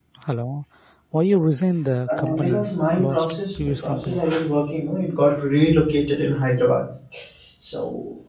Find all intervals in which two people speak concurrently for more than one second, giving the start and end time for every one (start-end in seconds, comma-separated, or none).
2.2-4.2